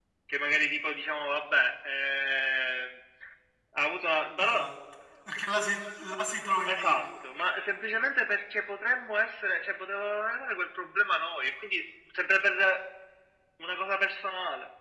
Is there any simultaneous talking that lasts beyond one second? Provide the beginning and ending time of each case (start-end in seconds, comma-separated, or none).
none